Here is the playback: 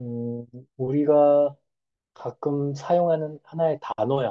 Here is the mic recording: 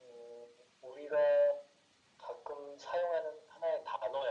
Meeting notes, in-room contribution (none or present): none